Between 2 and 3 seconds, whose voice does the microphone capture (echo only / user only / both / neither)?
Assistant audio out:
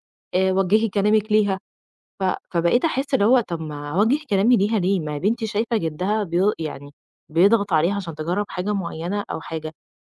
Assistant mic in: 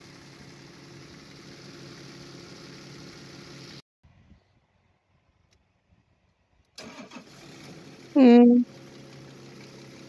neither